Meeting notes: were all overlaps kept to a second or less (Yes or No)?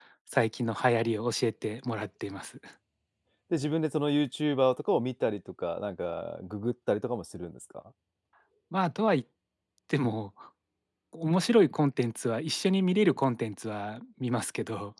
Yes